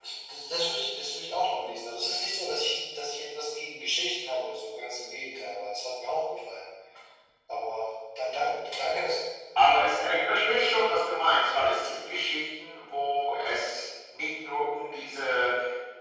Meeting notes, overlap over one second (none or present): none